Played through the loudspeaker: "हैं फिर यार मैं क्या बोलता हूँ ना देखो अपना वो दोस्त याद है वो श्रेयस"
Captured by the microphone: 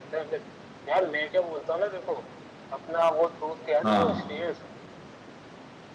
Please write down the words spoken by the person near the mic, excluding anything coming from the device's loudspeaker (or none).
हाँ